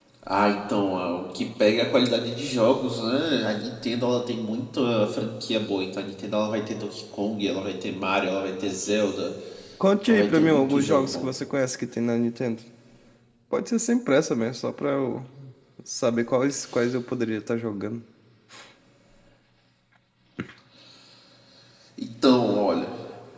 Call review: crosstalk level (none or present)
present